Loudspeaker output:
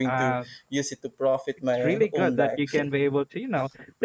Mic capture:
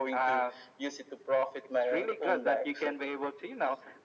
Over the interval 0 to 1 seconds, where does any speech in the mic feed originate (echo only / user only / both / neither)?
echo only